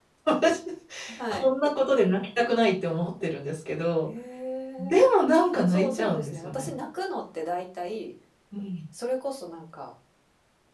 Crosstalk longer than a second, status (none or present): present